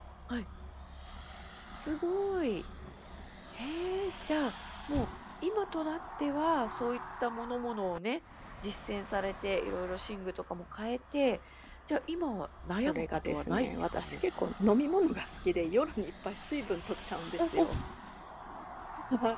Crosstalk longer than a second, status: present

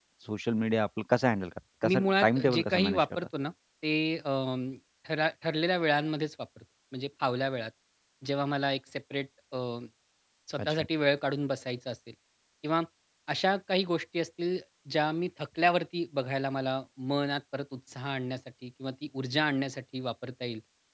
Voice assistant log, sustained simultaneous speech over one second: present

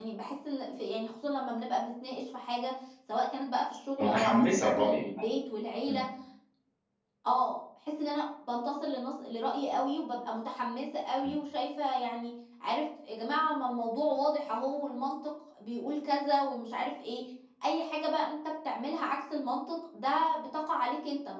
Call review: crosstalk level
present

